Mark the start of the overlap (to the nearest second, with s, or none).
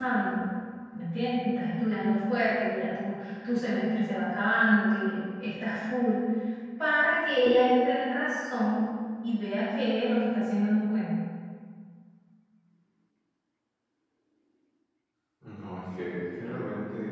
none